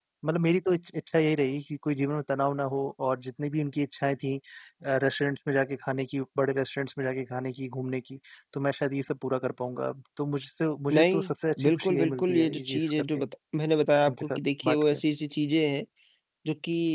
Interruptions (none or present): present